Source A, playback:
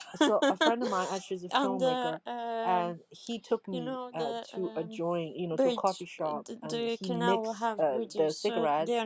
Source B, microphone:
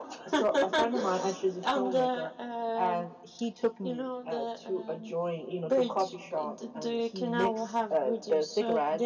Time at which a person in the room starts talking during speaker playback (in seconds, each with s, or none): none